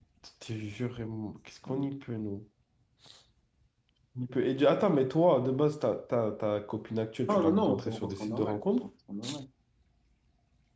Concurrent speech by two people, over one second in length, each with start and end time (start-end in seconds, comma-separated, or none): 7.3-8.6